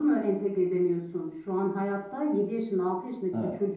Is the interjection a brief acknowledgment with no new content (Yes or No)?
Yes